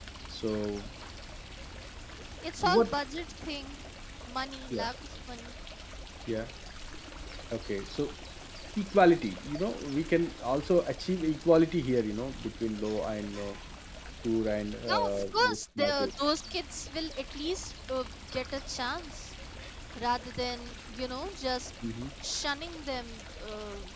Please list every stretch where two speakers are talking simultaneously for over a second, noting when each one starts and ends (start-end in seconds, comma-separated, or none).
14.9-16.1